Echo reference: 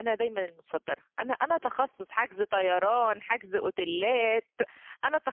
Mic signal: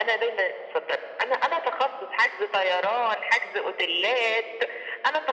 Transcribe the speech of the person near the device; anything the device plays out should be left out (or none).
none